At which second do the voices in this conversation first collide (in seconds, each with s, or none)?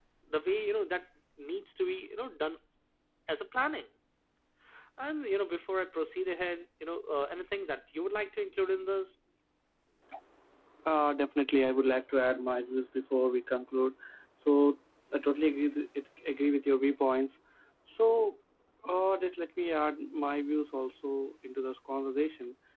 none